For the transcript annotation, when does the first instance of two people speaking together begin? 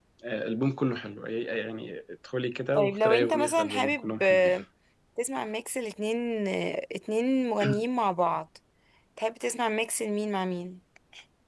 2.8 s

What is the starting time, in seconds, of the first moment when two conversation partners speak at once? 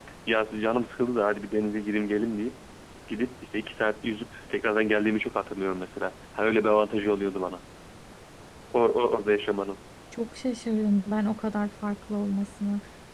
none

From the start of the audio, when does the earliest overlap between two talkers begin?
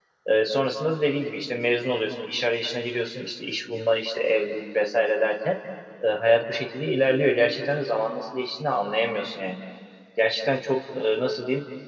none

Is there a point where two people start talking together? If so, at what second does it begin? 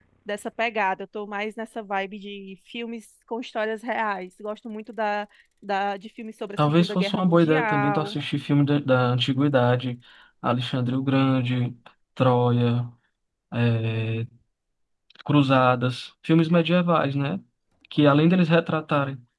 6.6 s

